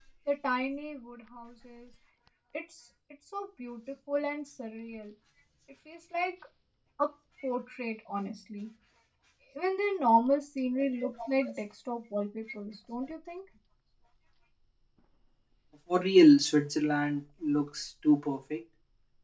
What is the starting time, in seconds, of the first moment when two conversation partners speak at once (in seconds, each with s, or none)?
none